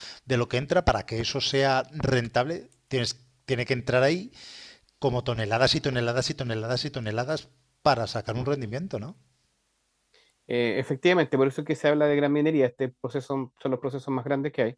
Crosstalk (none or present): none